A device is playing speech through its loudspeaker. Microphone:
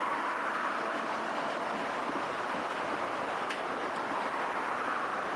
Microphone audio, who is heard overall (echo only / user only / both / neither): neither